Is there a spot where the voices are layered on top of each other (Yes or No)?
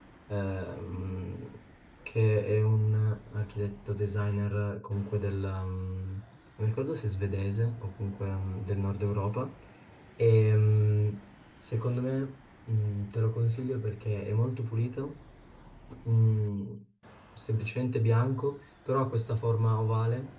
No